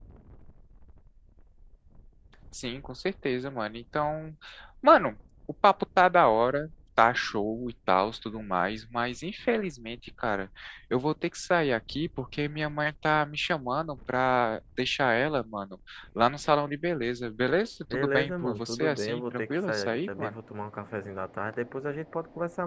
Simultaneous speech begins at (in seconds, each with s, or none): 17.9 s